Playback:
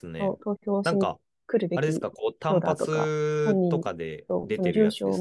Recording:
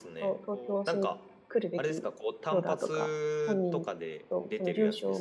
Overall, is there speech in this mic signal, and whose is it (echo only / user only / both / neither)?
both